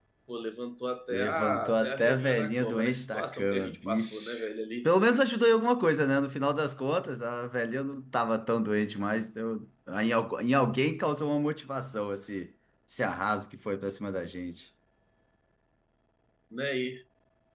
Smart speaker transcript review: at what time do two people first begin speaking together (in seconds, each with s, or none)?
1.1 s